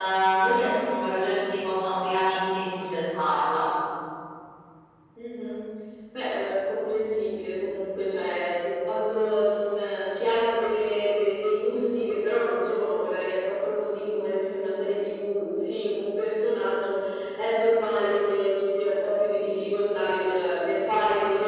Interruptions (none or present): none